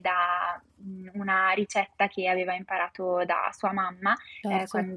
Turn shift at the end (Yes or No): No